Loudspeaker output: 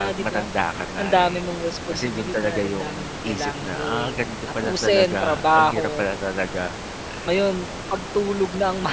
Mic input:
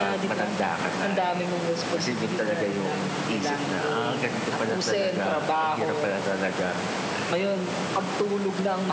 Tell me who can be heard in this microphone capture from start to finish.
echo only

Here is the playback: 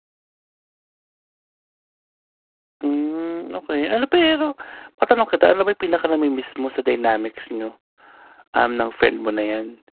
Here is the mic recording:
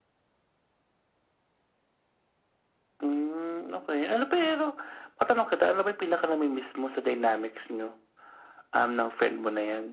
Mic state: echo only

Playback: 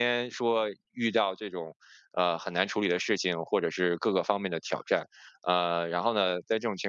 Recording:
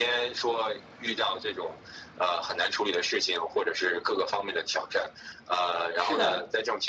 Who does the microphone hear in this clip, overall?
both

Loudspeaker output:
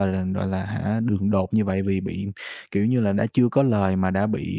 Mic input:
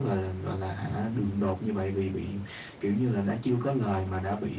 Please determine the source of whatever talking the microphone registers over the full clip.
echo only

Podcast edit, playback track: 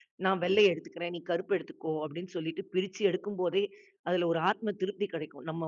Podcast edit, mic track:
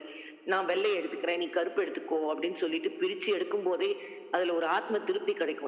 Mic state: echo only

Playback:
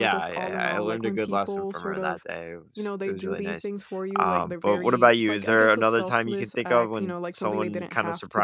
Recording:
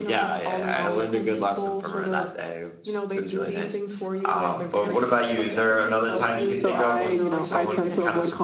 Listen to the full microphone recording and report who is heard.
both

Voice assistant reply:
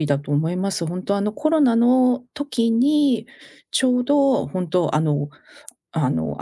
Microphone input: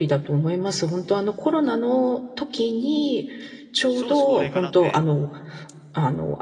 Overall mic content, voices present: both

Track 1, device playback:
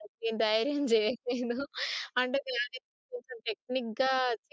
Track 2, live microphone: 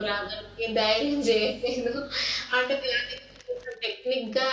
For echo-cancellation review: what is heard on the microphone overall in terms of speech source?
echo only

